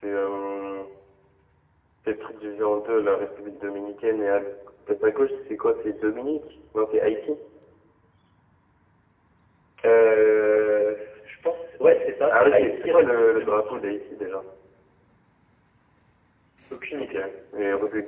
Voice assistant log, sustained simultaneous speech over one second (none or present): present